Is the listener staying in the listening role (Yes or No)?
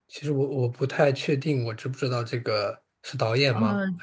No